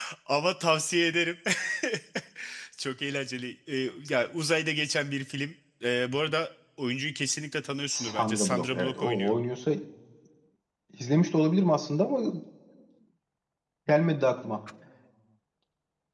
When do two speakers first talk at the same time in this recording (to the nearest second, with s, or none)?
8 s